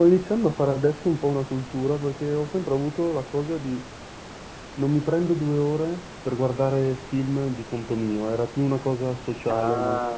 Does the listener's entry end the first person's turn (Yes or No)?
Yes